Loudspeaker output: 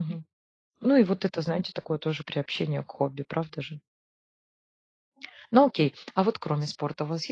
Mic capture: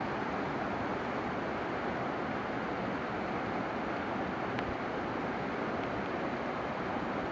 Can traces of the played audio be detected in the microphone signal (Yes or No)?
No